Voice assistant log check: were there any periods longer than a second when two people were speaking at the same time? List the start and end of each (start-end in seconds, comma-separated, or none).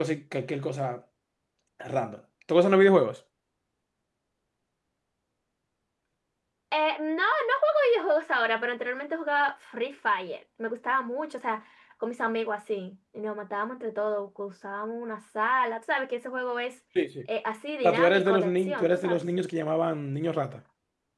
17.8-19.2